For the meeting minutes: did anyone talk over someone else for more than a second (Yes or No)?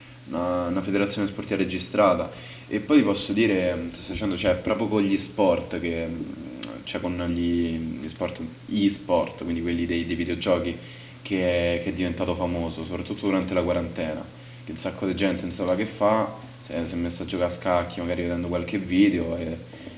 No